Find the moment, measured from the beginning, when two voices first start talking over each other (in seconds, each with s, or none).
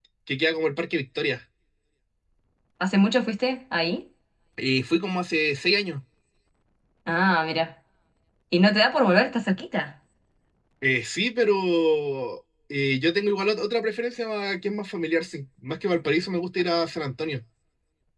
none